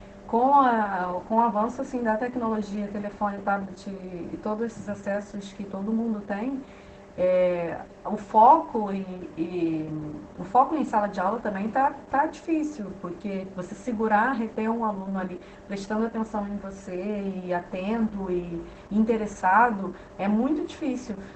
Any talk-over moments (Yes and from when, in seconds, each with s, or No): No